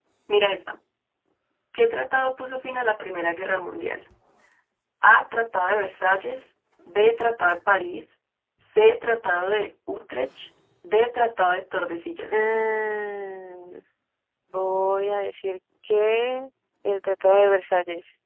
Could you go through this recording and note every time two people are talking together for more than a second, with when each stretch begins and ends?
none

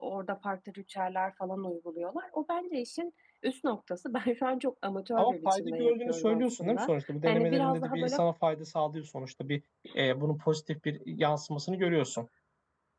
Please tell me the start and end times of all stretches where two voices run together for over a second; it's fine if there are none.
5.2-8.2

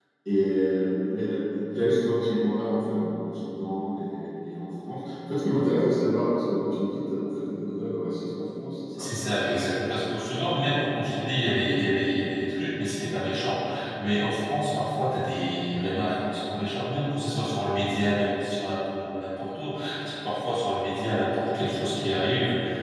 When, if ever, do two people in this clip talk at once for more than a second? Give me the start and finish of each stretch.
none

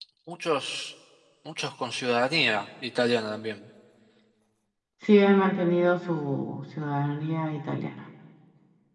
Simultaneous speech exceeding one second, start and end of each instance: none

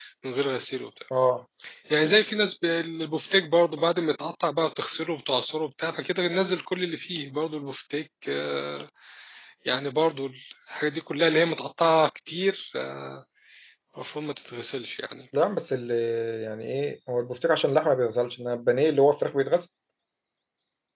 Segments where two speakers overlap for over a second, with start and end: none

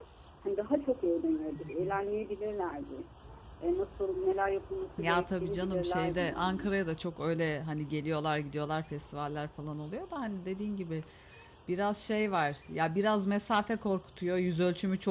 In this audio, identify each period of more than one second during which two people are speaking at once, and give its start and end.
5.0-6.7

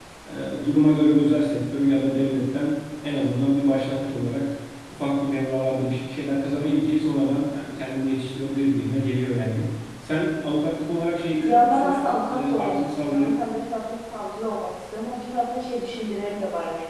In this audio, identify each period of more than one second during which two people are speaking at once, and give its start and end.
11.4-13.3

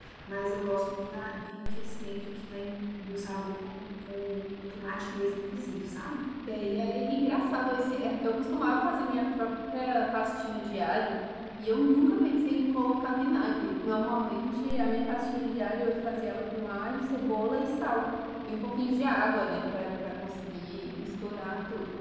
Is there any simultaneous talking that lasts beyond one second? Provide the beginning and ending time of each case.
none

